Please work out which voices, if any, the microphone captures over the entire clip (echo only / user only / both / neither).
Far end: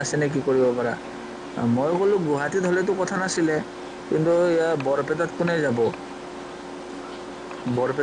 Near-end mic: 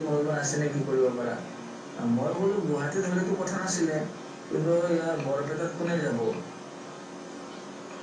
echo only